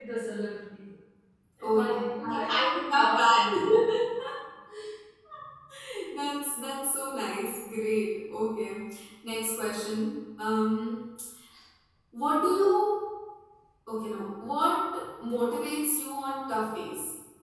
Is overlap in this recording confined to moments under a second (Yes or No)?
No